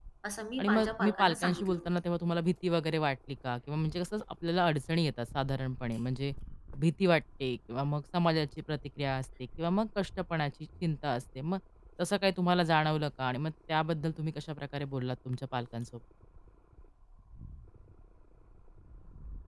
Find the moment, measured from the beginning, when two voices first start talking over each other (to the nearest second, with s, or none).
1 s